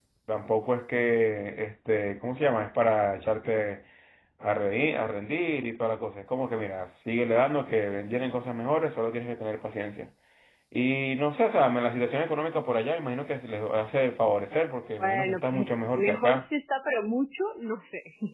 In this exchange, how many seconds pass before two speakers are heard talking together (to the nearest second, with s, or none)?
15 s